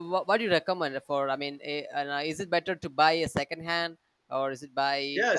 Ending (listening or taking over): taking over